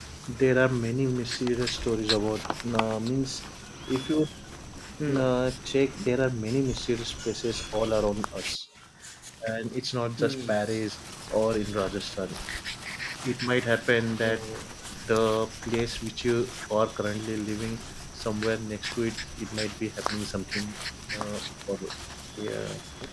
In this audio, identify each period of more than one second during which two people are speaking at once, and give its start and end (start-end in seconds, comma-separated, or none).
none